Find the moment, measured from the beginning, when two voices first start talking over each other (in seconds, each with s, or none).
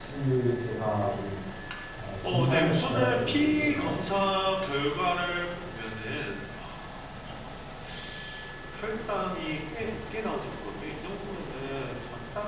2.2 s